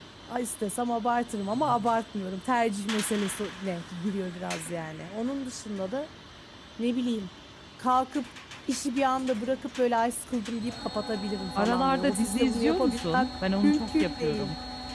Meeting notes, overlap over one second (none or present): present